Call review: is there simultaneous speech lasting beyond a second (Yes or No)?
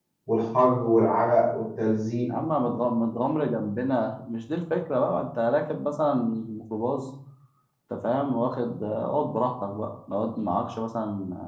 No